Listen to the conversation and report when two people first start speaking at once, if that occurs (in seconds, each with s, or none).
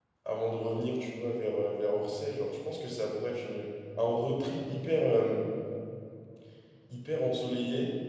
none